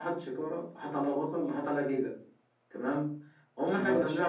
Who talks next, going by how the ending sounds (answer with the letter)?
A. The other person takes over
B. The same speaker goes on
B